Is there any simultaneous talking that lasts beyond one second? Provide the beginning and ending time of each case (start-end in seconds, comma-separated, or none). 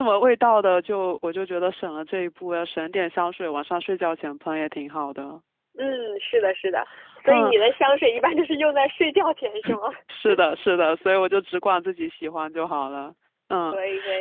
none